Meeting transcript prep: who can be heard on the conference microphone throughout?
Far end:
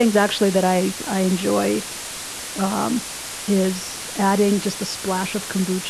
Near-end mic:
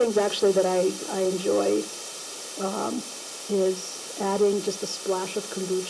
echo only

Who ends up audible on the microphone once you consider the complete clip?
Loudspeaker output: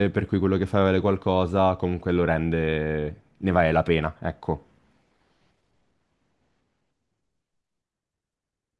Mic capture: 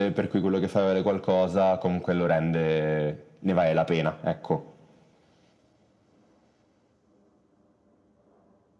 echo only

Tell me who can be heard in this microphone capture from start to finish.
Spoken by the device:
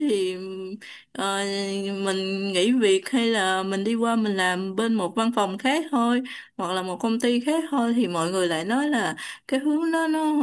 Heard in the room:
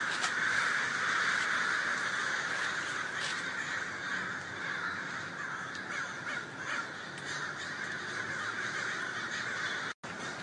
neither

